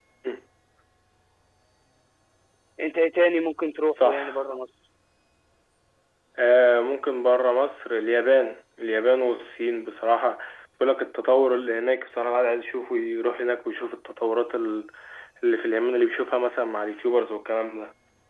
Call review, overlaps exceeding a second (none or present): none